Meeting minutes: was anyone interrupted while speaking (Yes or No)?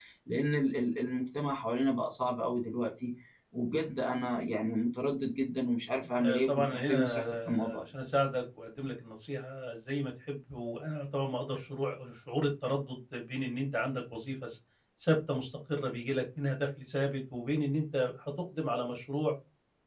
Yes